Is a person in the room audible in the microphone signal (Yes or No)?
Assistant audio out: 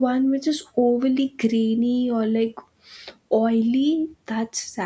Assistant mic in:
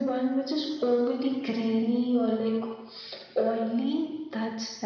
No